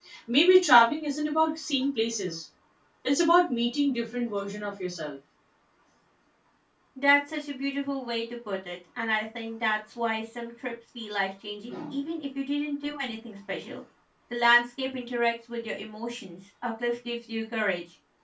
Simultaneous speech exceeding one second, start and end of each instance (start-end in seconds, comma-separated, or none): none